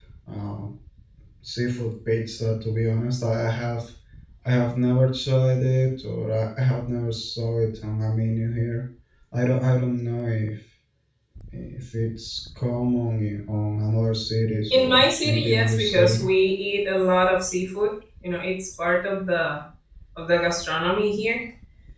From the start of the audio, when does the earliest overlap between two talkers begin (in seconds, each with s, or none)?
14.7 s